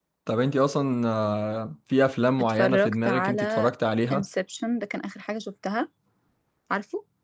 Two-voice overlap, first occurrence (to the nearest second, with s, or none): 2 s